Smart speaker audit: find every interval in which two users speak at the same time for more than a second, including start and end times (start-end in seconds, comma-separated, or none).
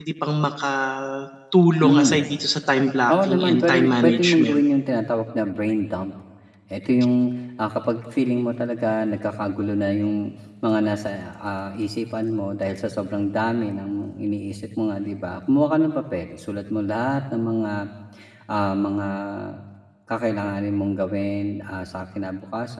3.1-4.6